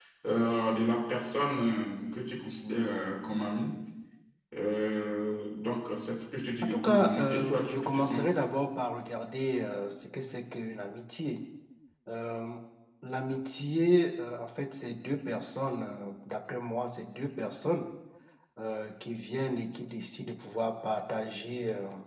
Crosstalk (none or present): present